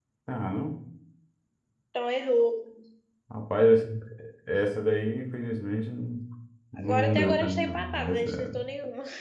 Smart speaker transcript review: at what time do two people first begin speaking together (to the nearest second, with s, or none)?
7 s